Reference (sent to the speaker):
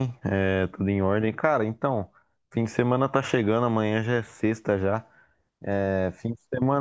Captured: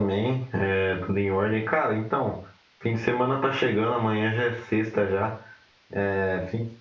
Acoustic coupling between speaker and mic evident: Yes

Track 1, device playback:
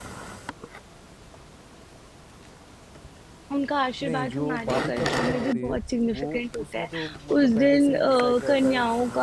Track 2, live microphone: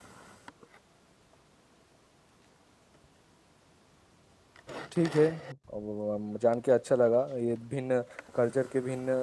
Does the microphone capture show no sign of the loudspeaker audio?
Yes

